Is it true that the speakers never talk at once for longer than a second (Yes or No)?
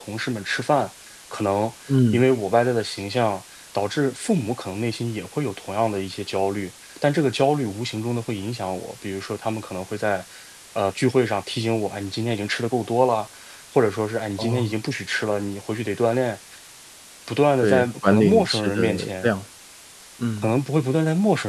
No